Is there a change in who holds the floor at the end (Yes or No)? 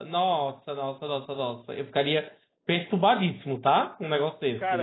Yes